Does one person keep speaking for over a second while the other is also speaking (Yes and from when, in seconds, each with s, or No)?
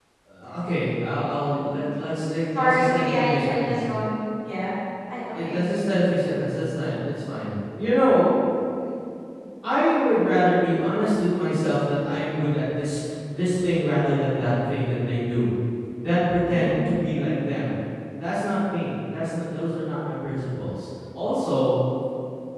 Yes, from 2.5 s